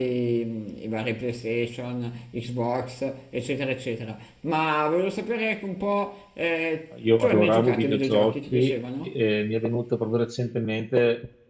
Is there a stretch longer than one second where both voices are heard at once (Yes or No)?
Yes